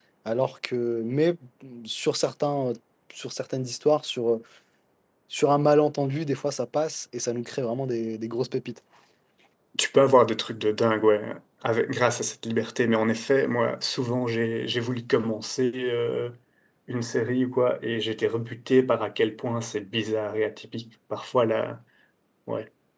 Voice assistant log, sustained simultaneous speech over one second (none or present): none